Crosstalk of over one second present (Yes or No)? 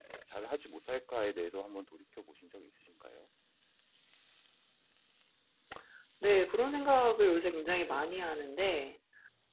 No